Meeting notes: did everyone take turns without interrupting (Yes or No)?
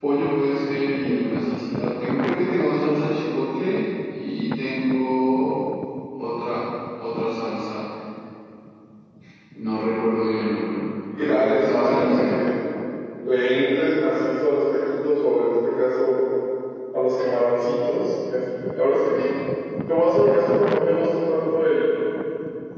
No